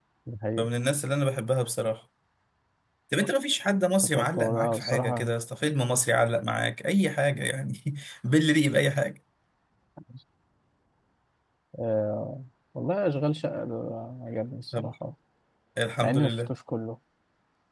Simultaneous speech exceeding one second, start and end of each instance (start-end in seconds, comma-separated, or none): 4.0-5.3